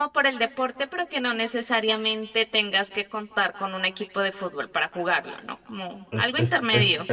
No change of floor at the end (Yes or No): No